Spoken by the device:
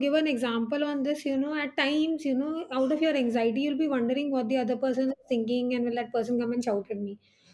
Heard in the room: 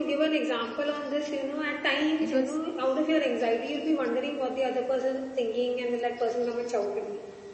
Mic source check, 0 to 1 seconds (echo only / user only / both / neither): echo only